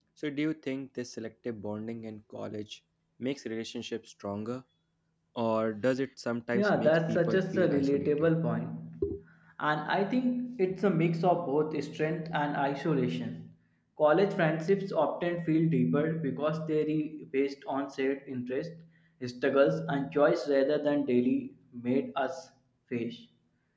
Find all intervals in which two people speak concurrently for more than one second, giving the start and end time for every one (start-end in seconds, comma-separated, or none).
6.5-8.3